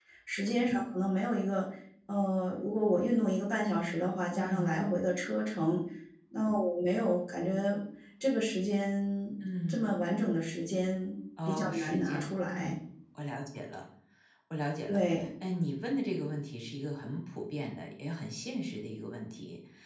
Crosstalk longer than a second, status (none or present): present